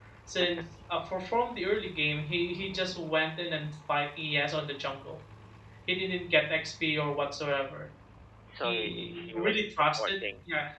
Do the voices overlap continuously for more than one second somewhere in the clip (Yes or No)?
Yes